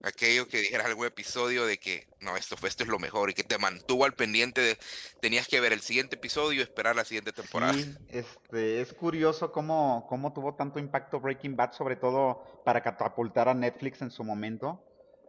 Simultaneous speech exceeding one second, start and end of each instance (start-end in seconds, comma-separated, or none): none